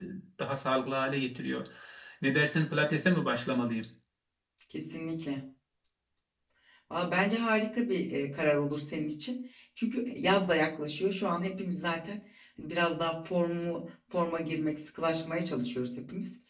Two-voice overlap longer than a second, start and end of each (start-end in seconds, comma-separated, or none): none